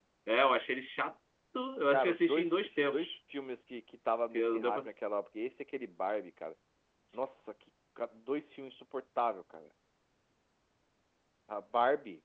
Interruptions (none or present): present